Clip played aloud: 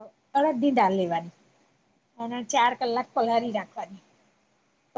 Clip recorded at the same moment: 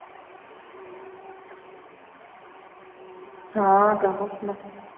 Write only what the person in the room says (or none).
હા ગમેત ને